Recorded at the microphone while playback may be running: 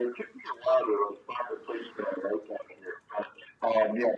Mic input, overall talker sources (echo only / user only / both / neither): echo only